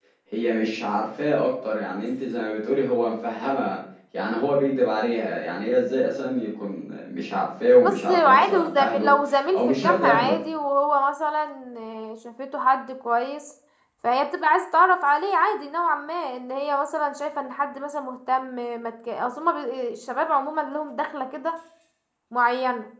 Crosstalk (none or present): present